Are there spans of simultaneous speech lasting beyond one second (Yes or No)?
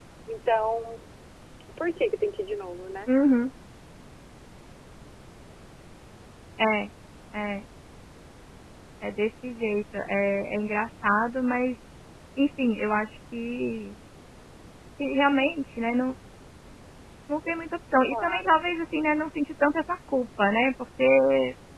No